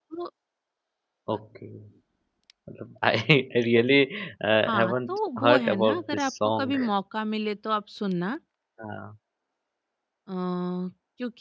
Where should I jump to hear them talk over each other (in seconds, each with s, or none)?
4.6 s